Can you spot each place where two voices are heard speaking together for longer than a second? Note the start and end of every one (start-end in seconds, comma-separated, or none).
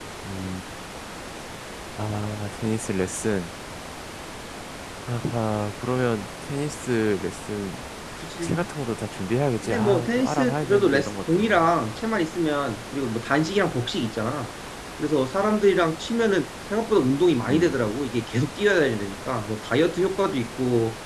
9.6-11.6